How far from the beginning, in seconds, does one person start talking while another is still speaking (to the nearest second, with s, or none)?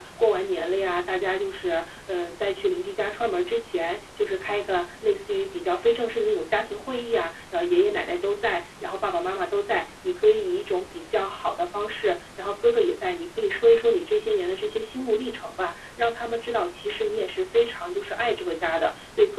none